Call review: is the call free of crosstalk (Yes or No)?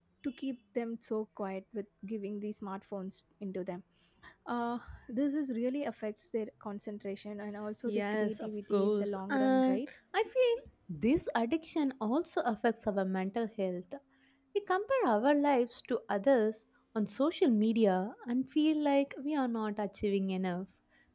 No